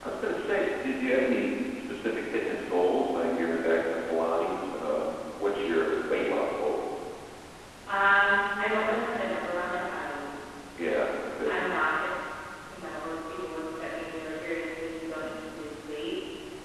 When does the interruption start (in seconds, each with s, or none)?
none